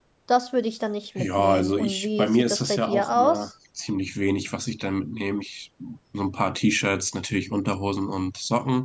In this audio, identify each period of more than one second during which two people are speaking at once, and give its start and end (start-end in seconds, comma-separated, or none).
1.2-3.5